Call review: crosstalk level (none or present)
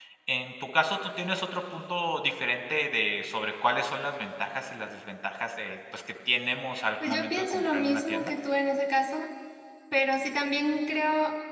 present